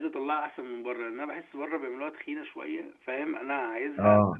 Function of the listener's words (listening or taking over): listening